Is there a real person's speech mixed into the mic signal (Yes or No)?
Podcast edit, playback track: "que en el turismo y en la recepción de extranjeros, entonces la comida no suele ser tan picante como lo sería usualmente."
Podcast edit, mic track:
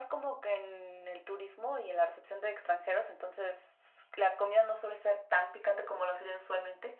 No